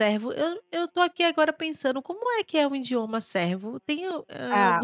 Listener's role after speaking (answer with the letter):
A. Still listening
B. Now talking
B